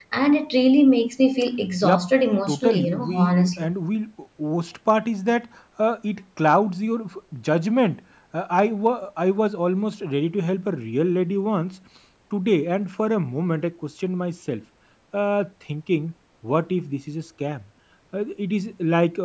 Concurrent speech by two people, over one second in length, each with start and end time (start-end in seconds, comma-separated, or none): 2.5-3.7